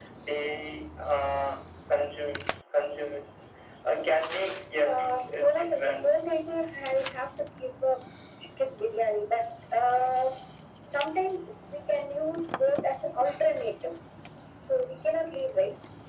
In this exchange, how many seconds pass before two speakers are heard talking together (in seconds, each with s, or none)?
4.8 s